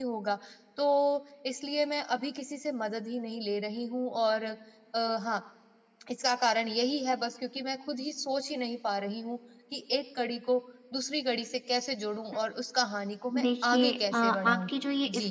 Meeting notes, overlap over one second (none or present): present